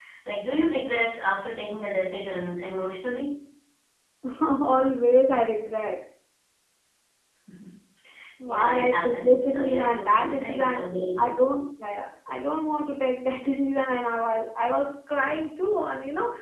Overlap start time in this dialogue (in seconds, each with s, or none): 8.5 s